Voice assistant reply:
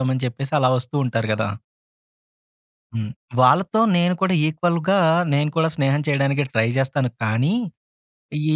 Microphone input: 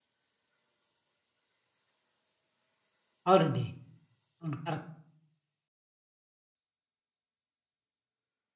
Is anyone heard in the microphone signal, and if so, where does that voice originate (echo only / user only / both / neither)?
user only